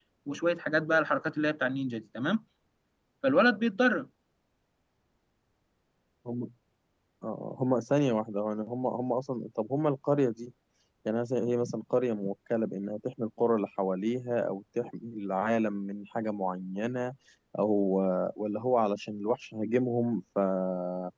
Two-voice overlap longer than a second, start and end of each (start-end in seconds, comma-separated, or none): none